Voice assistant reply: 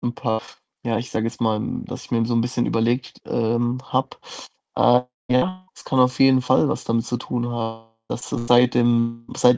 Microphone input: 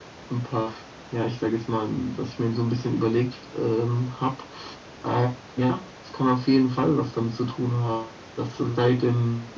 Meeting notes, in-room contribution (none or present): none